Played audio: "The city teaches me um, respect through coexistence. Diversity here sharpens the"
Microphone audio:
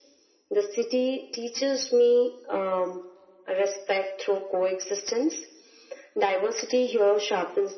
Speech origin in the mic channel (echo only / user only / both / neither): echo only